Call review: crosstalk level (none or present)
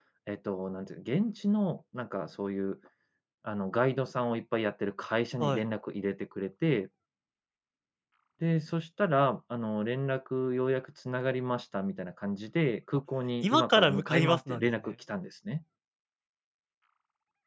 present